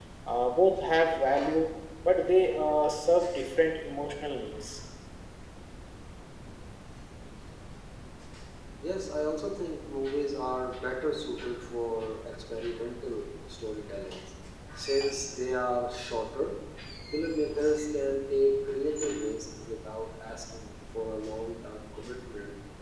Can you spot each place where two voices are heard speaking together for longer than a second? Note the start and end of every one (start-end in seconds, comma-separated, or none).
none